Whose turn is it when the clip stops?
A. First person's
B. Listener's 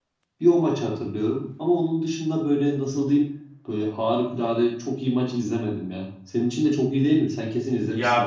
B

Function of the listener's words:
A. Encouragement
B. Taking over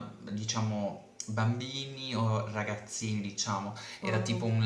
A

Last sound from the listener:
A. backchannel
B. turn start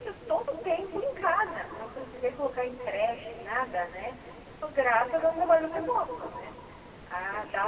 A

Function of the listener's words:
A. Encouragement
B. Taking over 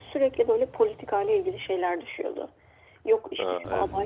A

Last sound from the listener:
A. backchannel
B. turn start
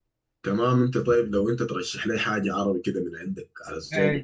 B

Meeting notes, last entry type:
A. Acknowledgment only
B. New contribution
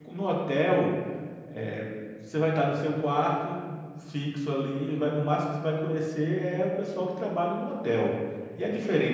A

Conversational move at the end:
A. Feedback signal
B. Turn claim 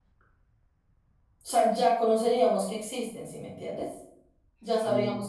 A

